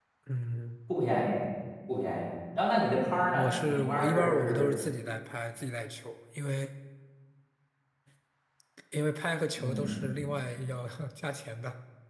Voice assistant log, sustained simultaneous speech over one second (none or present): present